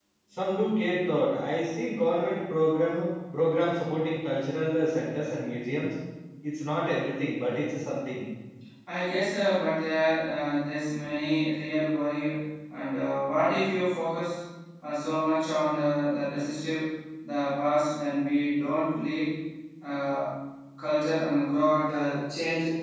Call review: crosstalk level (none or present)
none